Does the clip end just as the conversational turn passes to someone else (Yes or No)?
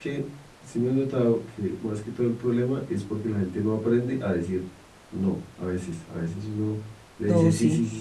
No